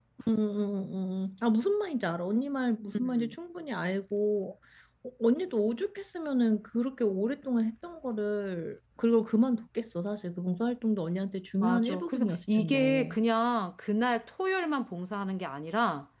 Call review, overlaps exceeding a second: present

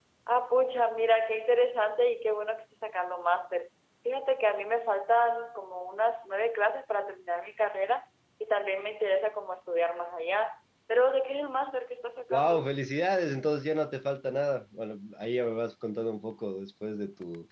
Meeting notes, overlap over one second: none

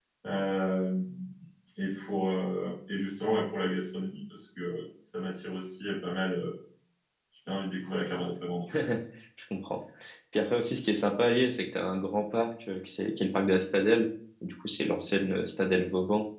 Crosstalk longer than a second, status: none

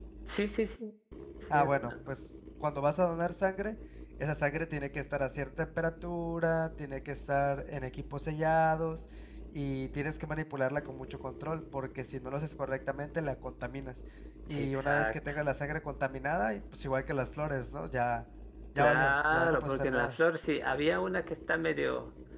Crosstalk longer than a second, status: present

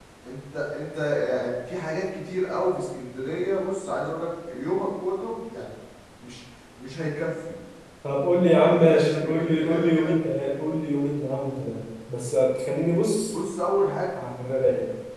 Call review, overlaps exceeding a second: present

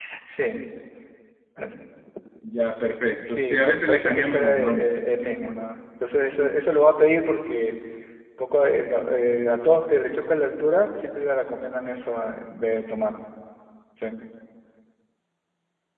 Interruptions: present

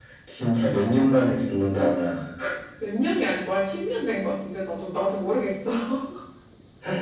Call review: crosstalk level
none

